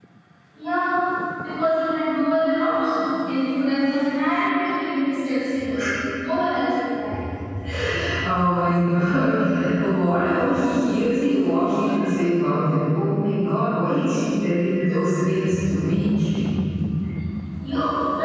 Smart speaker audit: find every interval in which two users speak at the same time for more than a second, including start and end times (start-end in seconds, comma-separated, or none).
none